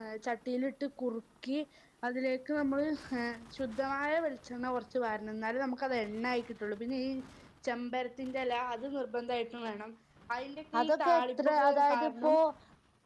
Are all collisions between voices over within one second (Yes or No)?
No